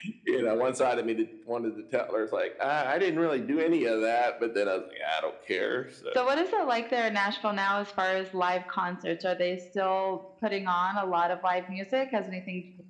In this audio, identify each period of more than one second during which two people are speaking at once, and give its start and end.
none

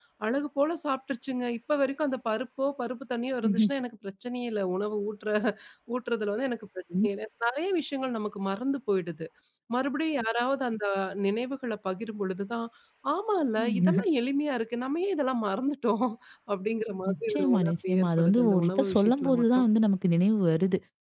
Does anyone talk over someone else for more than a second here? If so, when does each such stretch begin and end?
17.1-19.6

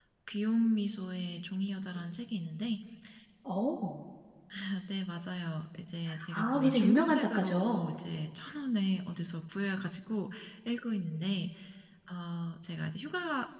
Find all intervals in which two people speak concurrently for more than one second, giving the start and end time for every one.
6.3-7.9

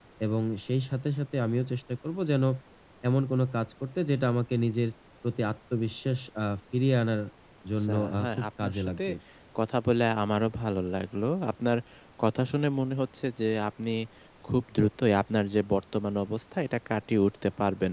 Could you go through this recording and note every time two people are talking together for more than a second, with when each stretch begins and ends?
7.8-9.0

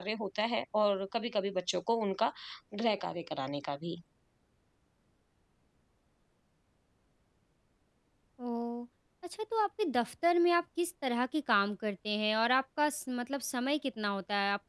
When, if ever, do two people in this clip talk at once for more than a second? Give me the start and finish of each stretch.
none

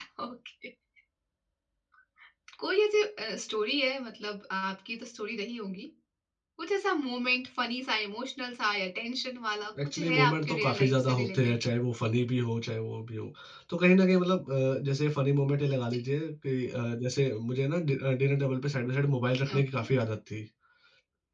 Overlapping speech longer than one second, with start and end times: 9.8-11.5

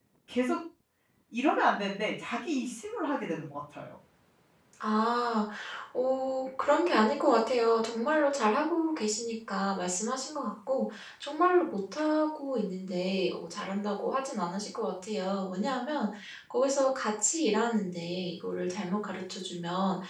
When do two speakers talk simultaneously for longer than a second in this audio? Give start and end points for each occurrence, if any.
none

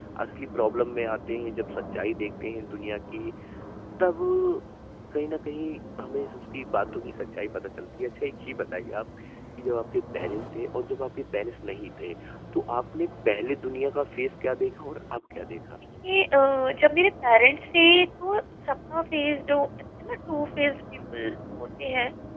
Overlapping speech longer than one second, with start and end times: none

